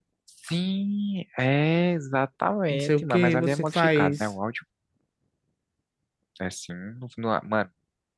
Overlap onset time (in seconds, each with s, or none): 2.7 s